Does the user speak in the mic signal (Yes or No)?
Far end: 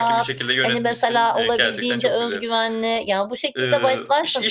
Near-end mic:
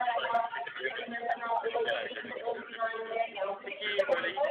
Yes